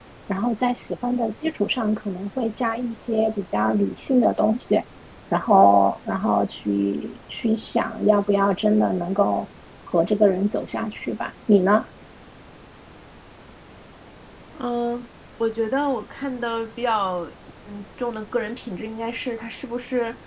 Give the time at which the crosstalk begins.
none

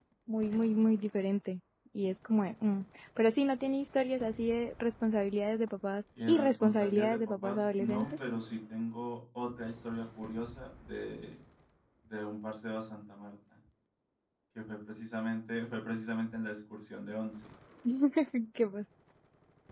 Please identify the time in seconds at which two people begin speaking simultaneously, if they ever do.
6.2 s

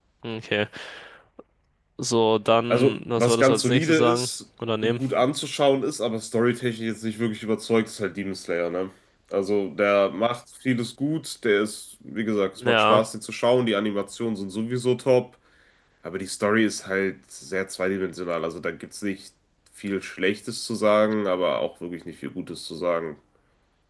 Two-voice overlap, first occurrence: 2.7 s

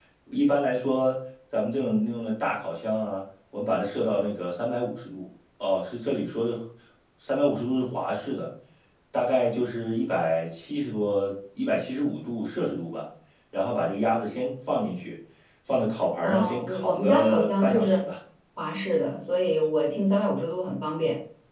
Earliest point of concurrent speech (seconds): 16.2 s

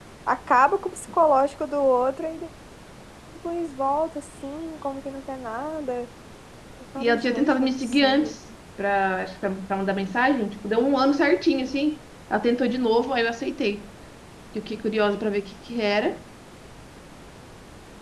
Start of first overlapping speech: 7.0 s

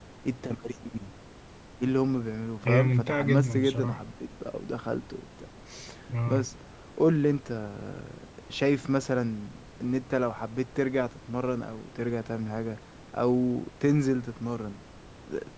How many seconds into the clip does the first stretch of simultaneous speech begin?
2.7 s

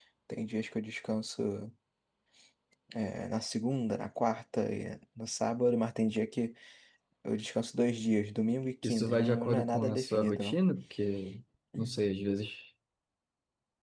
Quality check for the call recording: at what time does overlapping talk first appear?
8.8 s

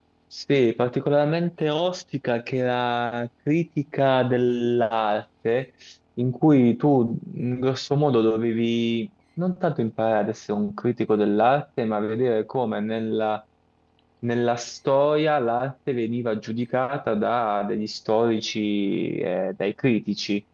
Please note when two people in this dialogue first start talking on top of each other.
none

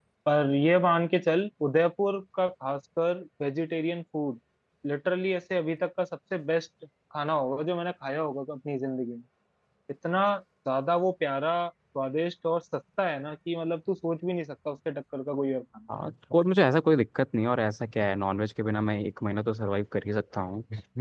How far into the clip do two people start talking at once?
none

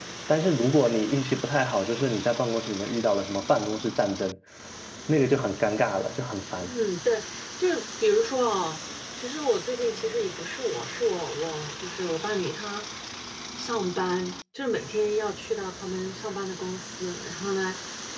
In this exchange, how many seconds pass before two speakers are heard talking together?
none

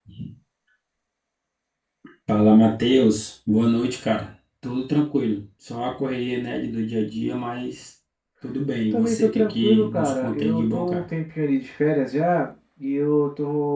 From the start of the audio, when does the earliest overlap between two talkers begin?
8.9 s

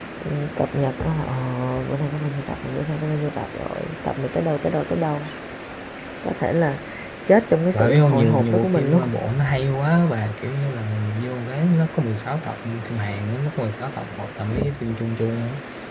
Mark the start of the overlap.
7.7 s

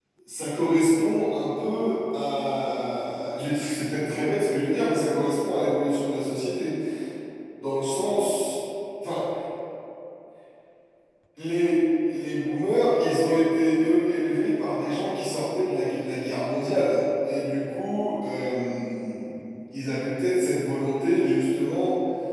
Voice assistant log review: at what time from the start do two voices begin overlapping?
none

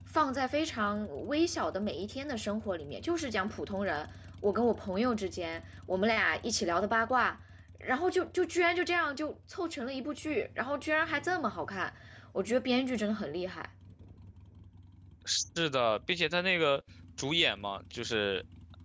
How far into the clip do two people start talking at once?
none

